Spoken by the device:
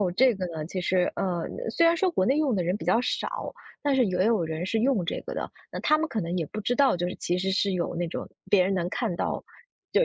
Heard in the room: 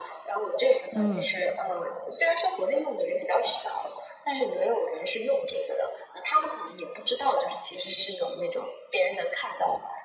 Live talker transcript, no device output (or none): 嗯，